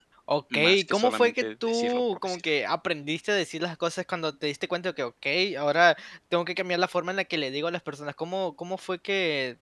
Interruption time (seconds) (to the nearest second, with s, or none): 1 s